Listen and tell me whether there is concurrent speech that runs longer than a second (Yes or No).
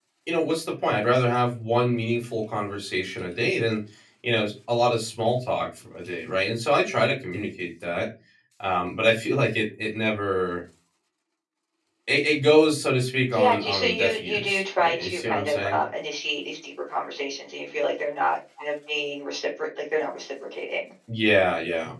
Yes